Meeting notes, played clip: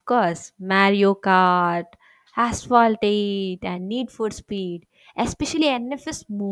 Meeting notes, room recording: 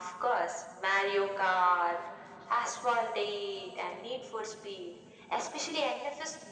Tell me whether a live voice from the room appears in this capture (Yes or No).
No